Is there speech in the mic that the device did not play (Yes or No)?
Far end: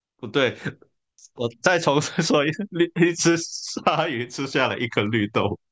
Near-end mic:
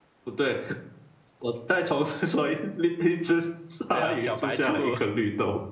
Yes